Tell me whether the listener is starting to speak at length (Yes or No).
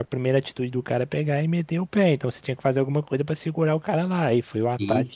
Yes